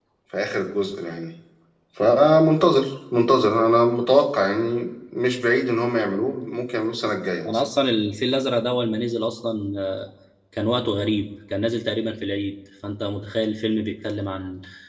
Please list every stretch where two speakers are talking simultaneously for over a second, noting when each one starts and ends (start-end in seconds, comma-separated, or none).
none